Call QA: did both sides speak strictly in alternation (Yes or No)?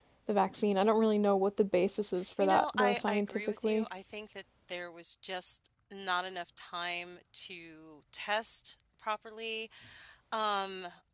No